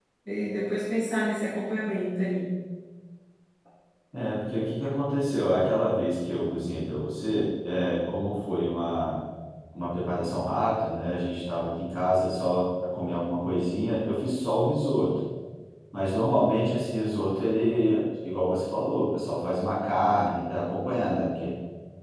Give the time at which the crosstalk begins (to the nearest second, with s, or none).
none